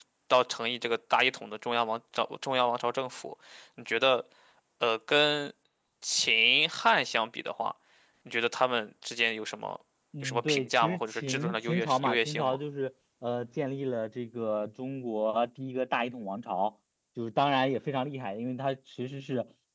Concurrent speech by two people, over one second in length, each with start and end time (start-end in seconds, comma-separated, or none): 10.2-12.6